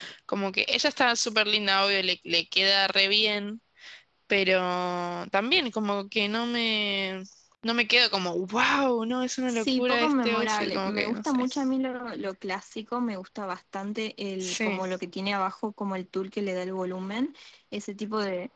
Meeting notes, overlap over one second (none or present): present